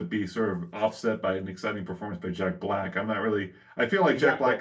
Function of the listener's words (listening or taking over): listening